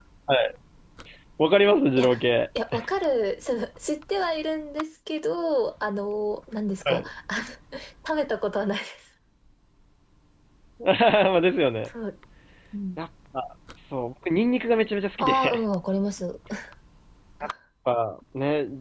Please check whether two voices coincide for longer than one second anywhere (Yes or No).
No